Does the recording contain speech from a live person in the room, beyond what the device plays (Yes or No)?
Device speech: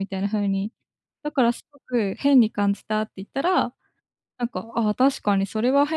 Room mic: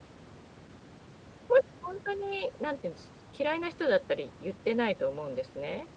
Yes